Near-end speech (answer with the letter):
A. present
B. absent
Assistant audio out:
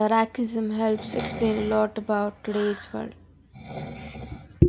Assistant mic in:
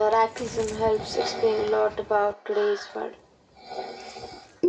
B